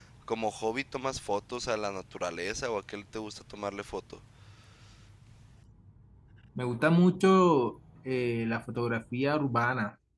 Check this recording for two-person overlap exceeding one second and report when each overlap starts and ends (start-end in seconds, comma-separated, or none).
none